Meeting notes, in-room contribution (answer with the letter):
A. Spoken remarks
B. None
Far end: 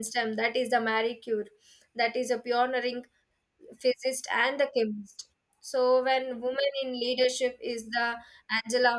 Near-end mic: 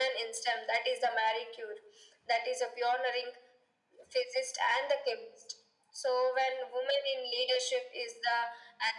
B